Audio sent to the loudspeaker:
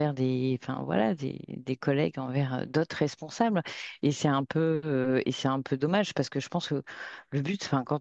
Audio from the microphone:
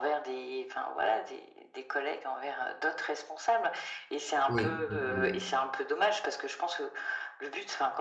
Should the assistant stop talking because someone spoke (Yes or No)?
Yes